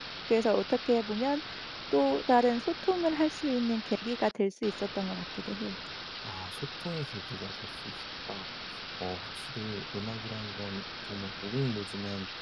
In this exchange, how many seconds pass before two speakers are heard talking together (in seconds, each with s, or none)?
none